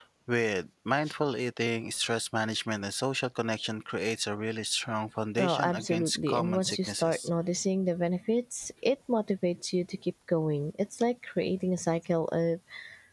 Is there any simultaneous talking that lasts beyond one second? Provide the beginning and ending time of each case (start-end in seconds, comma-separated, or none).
5.4-7.3